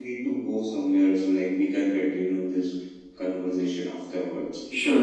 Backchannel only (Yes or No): No